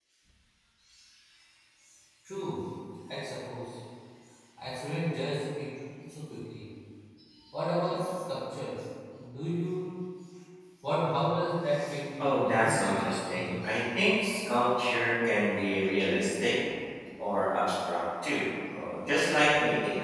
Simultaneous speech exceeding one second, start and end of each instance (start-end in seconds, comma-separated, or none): 12.2-13.8